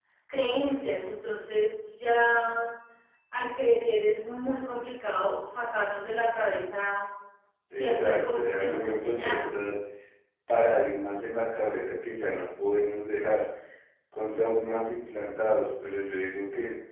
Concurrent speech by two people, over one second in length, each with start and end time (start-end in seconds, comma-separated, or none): 7.8-9.6